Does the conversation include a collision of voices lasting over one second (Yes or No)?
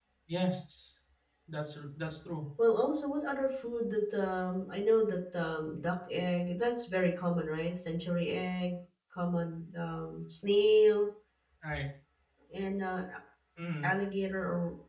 No